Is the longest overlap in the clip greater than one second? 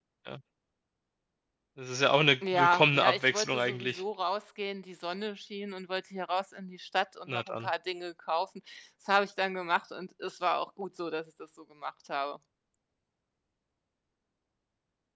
Yes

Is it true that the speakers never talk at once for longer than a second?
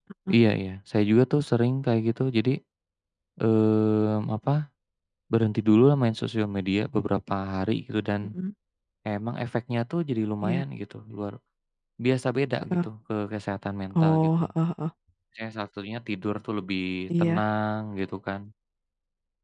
Yes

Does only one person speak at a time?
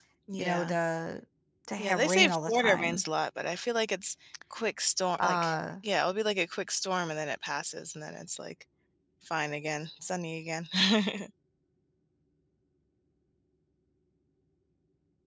No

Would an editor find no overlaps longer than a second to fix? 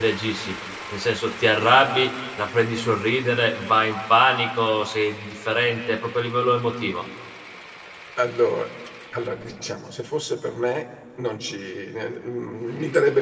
Yes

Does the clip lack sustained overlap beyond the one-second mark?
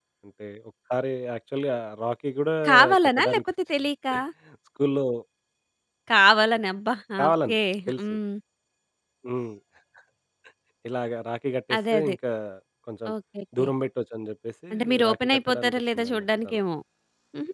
No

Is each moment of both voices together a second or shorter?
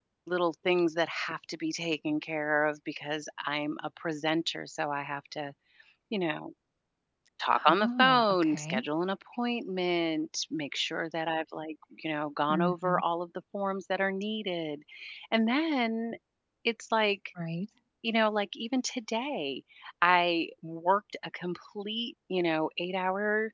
No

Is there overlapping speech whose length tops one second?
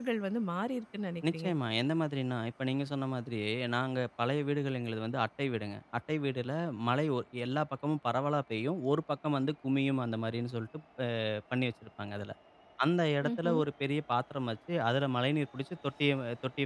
No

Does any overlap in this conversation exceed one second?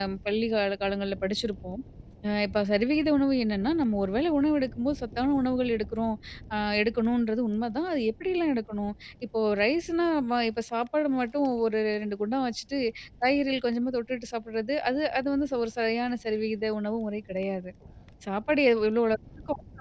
No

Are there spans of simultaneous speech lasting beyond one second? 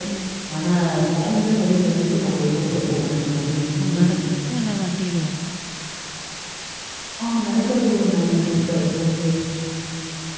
No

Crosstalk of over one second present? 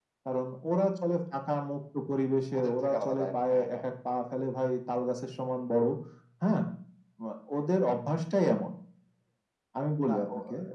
Yes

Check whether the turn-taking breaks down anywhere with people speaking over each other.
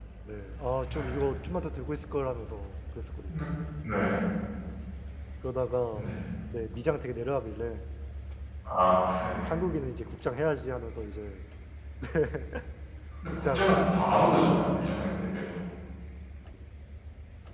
Yes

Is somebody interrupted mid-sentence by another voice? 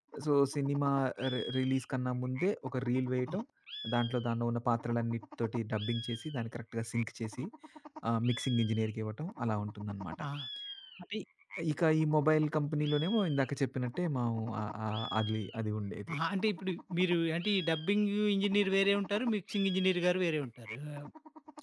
No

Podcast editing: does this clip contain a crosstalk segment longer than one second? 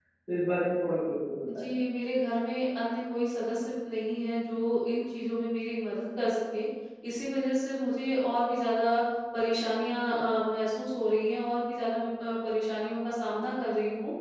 No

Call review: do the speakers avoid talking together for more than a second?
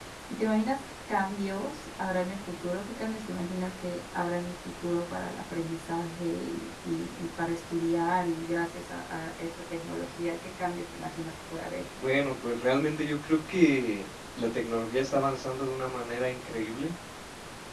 Yes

